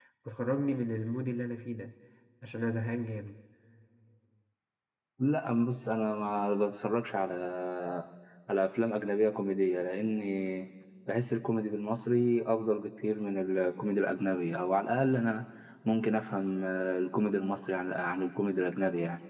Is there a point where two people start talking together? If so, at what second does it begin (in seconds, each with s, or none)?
none